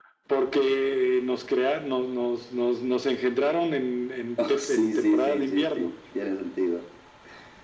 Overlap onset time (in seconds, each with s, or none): 4.4 s